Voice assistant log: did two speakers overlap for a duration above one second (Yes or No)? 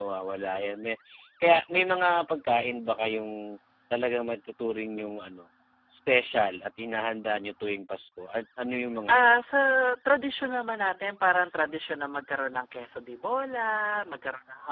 No